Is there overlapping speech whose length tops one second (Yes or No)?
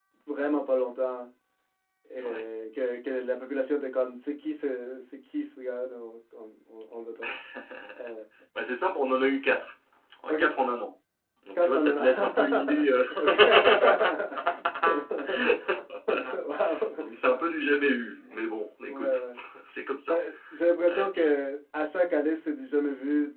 Yes